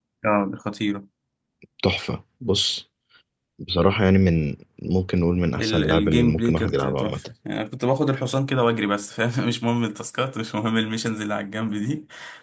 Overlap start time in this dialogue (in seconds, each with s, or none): 5.6 s